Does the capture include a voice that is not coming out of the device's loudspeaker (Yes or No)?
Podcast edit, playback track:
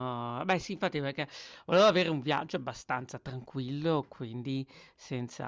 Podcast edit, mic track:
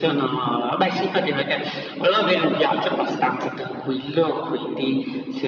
No